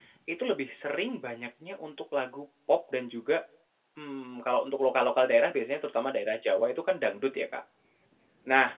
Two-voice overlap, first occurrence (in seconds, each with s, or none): none